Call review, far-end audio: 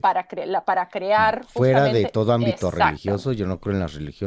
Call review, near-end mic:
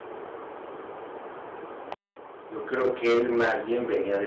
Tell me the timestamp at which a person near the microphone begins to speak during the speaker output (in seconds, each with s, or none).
2.5 s